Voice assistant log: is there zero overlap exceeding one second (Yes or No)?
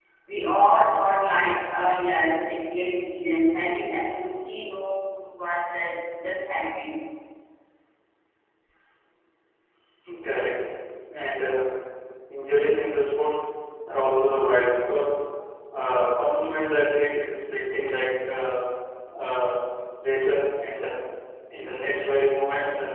Yes